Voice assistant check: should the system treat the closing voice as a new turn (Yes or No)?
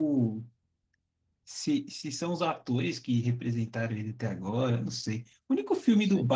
No